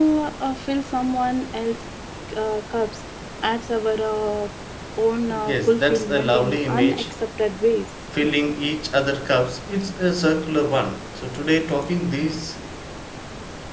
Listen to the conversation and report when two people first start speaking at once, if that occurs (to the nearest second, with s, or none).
5 s